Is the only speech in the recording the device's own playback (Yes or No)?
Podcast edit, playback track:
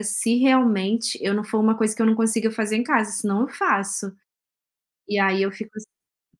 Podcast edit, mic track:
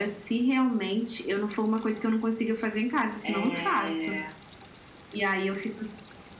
No